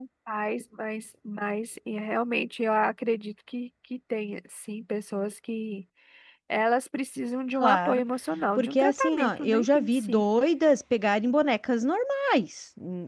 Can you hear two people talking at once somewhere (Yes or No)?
Yes